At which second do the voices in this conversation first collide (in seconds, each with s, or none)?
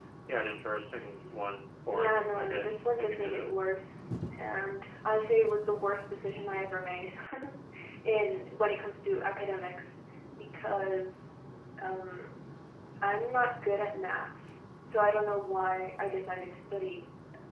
1.9 s